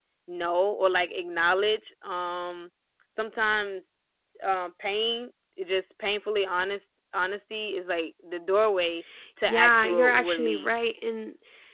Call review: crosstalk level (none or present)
present